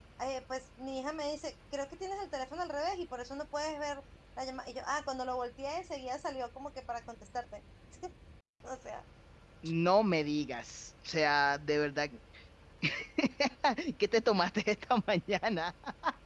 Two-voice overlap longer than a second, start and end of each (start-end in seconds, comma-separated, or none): none